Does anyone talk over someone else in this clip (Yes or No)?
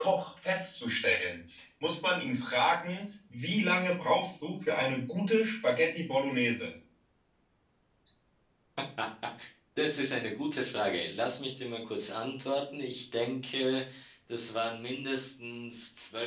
No